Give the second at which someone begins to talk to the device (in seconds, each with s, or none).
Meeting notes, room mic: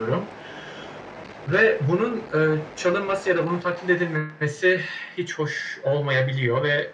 none